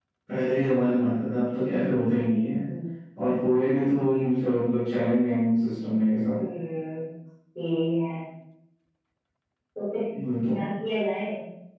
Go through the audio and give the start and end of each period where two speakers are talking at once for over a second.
none

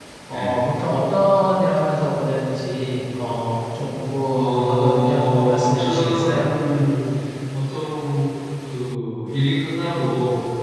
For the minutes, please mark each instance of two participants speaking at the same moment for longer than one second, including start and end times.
4.3-6.5

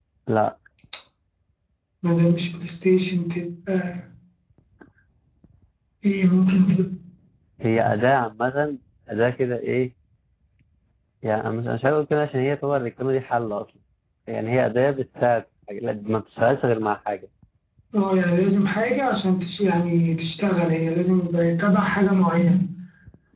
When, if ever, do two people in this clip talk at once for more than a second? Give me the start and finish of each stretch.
none

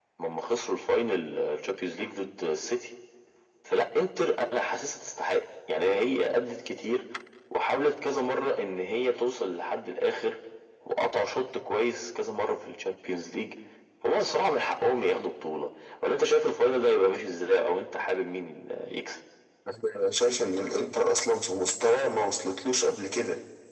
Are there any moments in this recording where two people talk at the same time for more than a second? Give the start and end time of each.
none

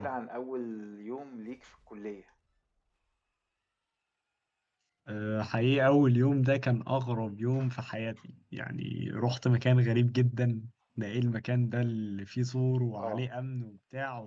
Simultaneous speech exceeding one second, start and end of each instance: none

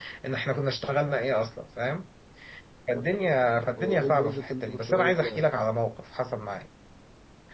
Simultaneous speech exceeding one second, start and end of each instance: 3.8-5.4

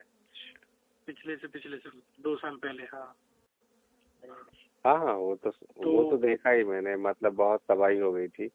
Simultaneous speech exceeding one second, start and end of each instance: none

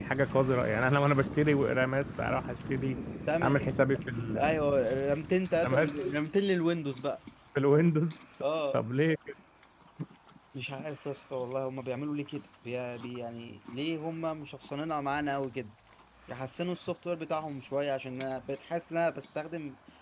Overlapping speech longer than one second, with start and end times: none

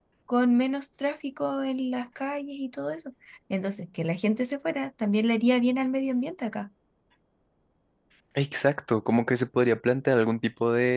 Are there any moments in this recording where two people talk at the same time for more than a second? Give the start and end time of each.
none

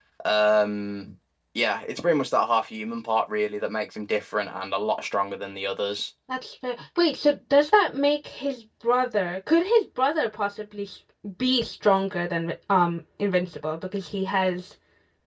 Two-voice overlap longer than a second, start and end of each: none

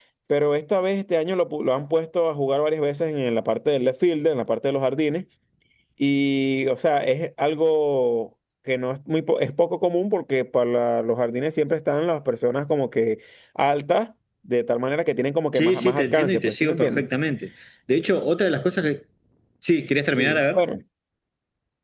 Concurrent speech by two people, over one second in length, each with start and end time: 15.6-17.0

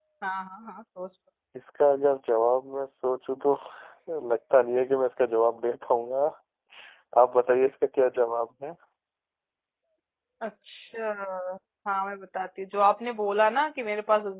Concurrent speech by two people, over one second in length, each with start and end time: none

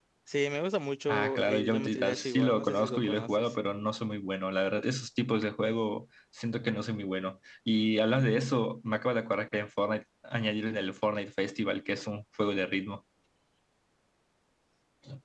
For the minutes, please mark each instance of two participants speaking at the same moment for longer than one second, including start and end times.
1.1-3.3

